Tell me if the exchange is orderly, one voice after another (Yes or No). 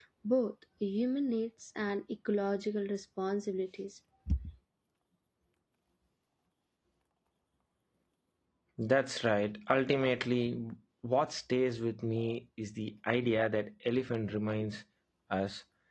Yes